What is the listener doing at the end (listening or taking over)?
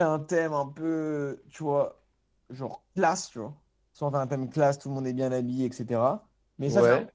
listening